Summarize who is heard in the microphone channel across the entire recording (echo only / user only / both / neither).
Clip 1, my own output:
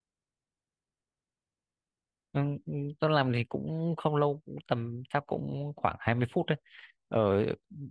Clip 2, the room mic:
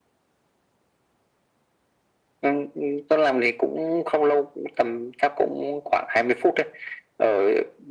echo only